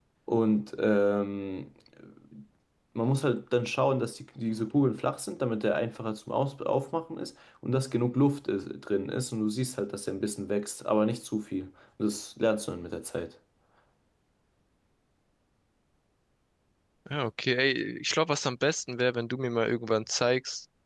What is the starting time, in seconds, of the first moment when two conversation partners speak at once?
none

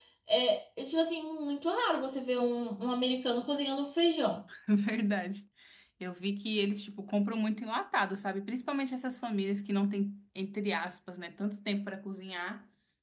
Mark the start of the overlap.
none

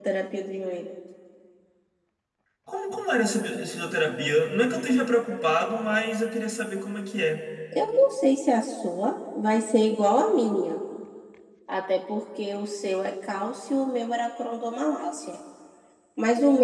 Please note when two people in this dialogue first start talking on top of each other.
none

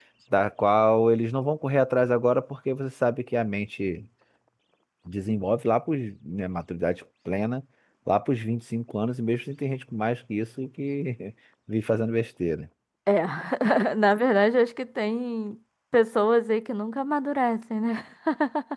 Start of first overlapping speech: none

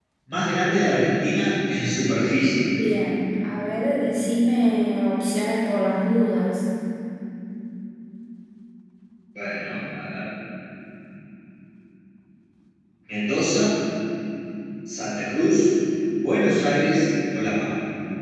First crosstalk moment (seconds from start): none

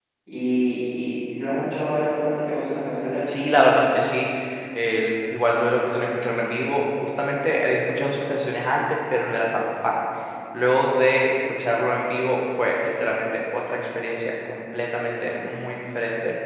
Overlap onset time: none

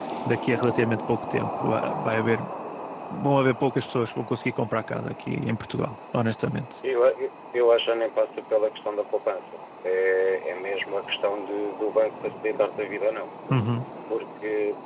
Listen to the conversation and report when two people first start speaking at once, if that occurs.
none

